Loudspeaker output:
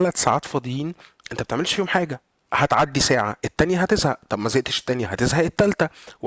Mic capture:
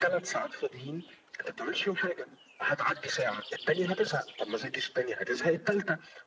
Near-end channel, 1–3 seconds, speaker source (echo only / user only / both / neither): echo only